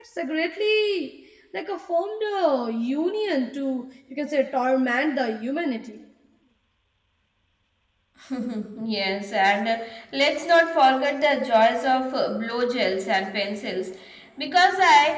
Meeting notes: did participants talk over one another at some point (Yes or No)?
No